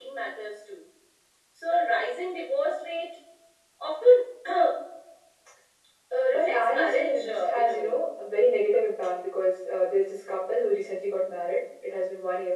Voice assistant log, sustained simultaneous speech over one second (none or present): present